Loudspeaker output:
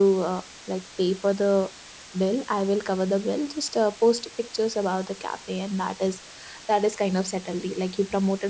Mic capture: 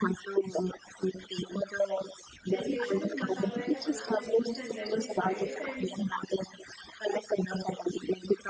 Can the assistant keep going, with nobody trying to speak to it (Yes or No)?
No